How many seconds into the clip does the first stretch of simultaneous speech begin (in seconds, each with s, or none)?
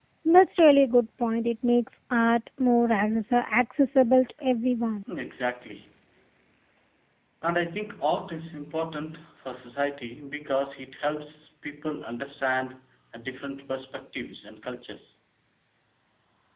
none